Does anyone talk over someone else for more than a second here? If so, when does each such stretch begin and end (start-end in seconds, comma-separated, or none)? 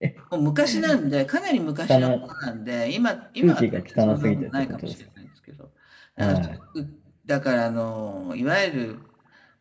3.4-4.9